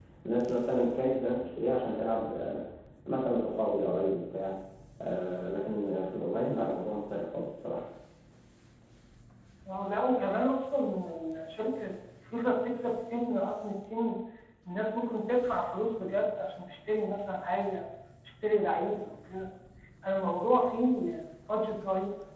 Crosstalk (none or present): none